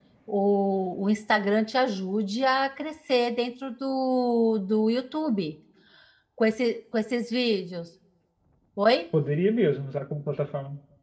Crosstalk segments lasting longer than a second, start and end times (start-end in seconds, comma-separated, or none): none